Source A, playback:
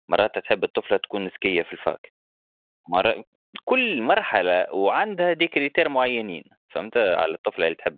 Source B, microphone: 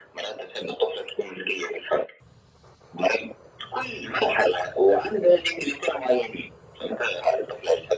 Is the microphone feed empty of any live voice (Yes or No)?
Yes